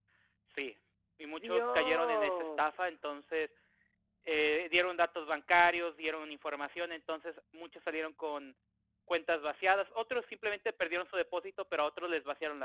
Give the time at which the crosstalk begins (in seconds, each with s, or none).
1.3 s